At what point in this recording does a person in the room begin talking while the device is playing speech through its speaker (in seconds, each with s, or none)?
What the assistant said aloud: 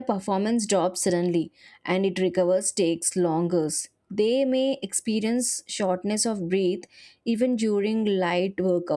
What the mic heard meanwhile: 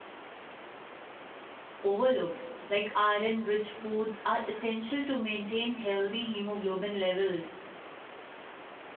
1.8 s